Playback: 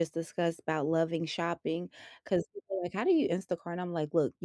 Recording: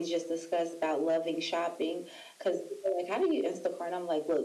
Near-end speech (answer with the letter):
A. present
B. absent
B